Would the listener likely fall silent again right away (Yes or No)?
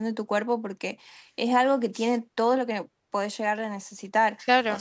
Yes